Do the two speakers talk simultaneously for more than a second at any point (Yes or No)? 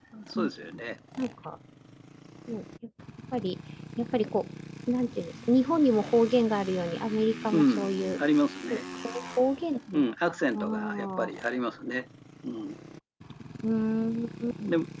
Yes